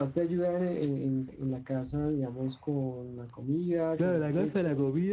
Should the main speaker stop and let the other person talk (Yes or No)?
Yes